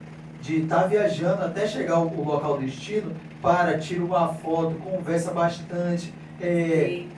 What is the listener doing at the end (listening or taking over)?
taking over